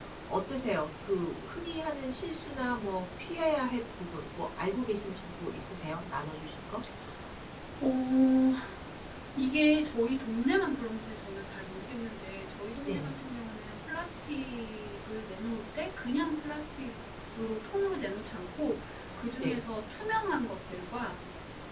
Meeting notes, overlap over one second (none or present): none